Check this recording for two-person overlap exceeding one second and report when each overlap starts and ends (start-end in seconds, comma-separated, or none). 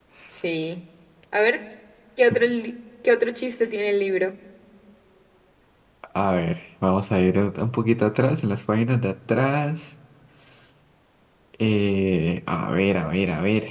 none